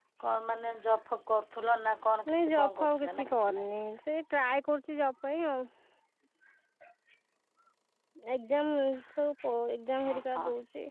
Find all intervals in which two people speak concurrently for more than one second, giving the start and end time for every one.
2.3-3.7

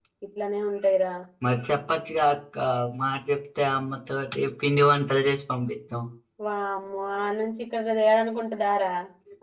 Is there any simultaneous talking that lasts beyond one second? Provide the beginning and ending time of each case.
none

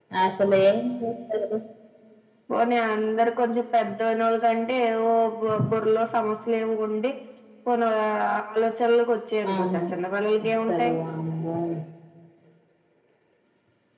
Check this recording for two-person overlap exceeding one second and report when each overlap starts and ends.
none

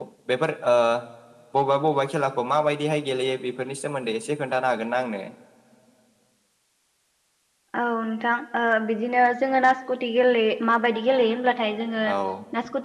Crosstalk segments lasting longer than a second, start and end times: none

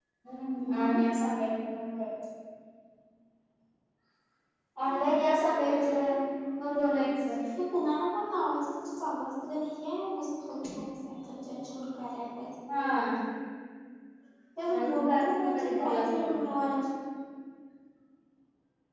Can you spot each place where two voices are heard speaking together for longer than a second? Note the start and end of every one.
14.7-16.4

